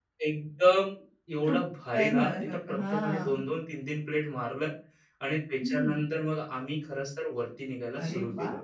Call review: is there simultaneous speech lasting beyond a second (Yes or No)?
Yes